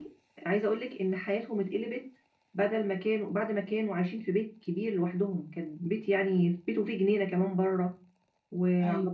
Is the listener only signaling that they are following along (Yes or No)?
Yes